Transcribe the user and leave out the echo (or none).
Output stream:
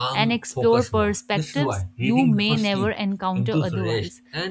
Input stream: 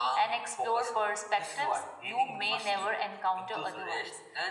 none